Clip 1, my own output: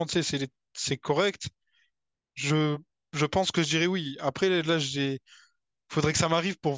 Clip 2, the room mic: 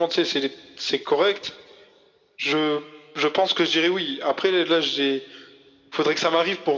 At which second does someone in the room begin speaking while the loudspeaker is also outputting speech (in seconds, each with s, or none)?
none